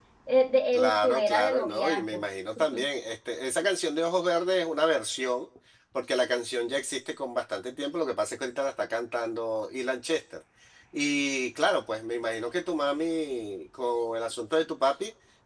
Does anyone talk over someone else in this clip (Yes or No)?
Yes